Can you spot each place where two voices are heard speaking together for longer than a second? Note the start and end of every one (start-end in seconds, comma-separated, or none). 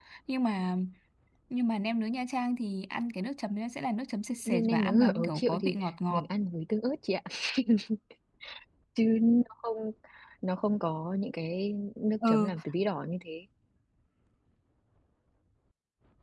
4.5-6.2